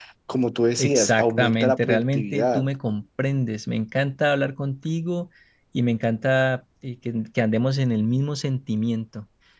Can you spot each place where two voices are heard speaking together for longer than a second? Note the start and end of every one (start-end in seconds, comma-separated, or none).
0.8-2.6